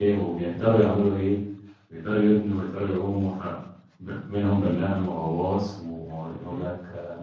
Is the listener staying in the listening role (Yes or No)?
Yes